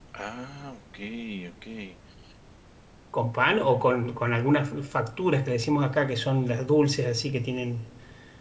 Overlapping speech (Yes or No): No